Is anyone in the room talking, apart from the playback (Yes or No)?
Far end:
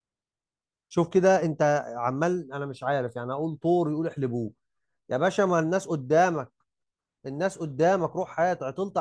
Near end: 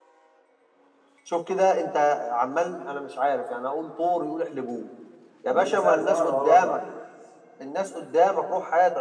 Yes